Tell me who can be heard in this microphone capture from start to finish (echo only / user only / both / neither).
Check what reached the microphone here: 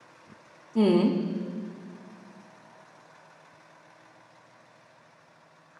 user only